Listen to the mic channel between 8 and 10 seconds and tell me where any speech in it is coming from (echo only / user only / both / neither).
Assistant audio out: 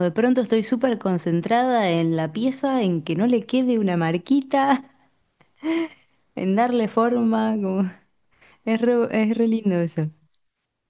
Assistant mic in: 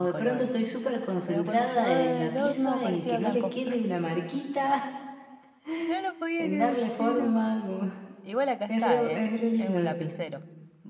both